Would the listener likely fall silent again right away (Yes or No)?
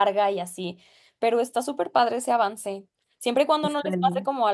Yes